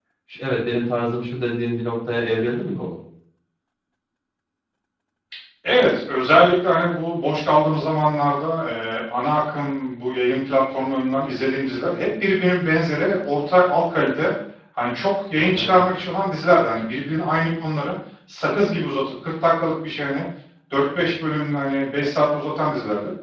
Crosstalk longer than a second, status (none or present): none